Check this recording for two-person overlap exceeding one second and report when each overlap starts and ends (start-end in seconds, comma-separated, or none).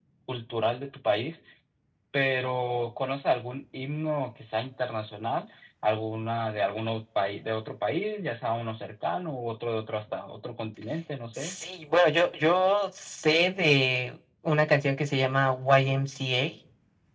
none